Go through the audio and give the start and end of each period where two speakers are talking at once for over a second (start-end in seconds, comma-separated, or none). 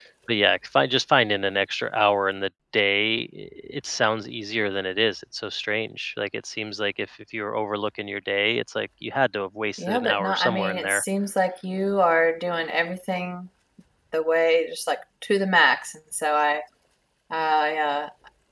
9.8-11.0